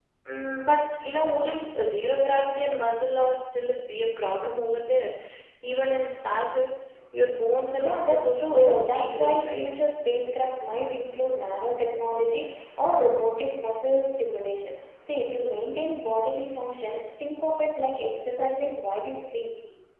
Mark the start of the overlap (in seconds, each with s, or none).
7.8 s